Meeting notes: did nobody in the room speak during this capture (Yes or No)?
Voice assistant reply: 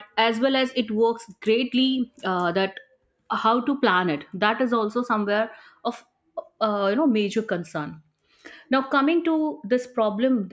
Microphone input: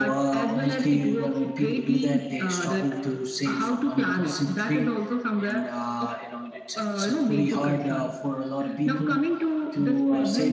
No